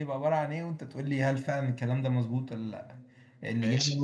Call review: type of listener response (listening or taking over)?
listening